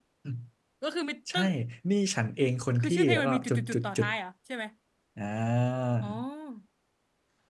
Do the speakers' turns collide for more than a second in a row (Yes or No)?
Yes